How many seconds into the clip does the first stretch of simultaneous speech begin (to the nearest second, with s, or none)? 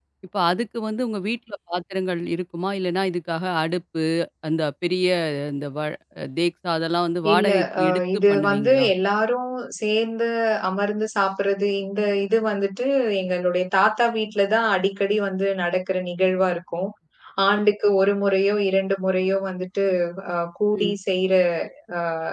7 s